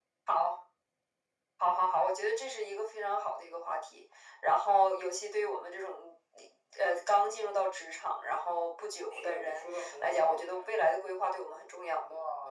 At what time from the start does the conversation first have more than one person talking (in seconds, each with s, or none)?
9.1 s